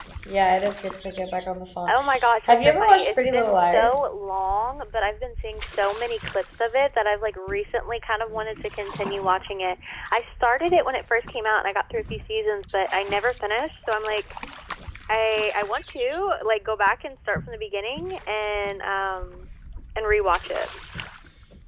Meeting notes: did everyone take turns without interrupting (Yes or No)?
No